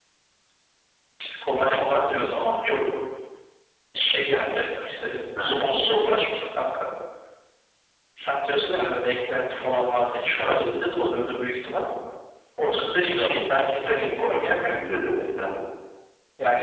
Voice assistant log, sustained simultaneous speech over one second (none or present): none